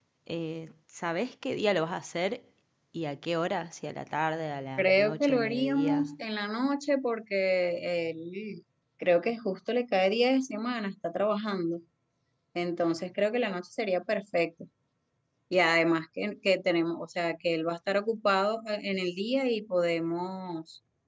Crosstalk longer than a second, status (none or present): present